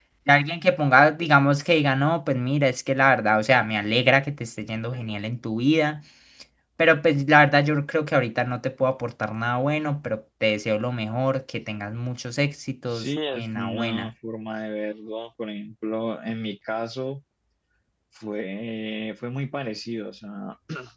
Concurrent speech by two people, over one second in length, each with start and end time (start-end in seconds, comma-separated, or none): 12.9-14.1